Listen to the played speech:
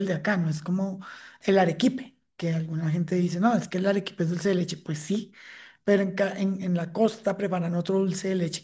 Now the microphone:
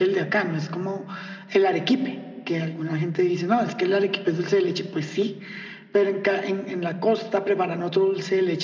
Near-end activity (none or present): none